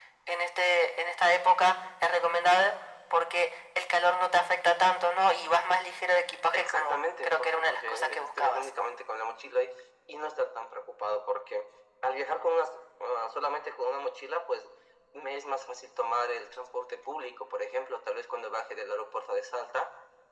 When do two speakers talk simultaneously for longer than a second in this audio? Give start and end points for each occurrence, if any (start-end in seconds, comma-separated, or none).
6.5-8.7